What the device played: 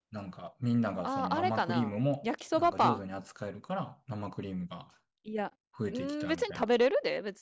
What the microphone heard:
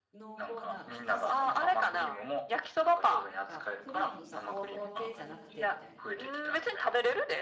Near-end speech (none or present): present